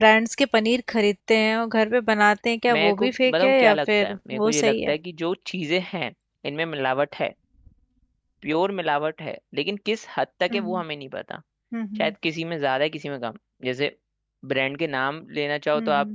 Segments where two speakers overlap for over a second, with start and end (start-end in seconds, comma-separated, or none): 2.7-4.9